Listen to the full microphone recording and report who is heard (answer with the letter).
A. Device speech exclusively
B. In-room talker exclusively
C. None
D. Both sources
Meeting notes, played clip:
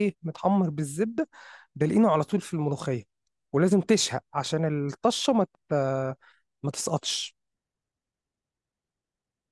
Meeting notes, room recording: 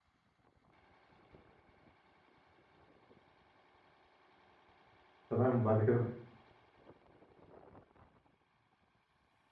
B